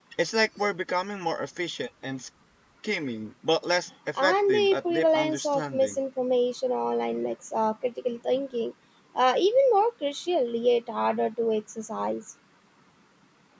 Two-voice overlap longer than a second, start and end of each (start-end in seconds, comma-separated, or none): 4.2-6.0